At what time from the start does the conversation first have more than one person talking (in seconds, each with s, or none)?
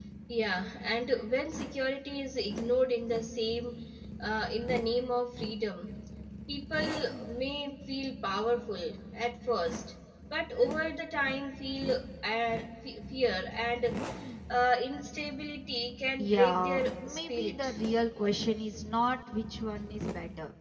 16.2 s